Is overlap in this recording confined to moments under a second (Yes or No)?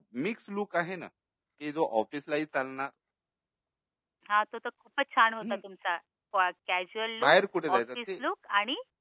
Yes